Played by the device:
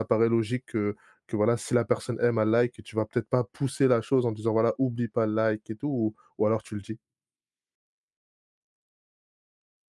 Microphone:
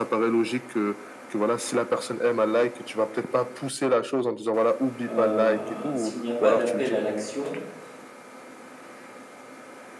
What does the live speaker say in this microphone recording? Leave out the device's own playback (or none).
Heu, s'il n'y a pas d'appel à l'action,